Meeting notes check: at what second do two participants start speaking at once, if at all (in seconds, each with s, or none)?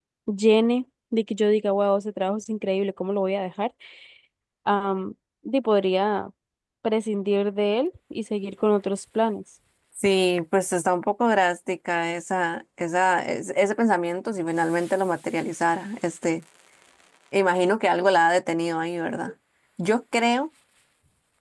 none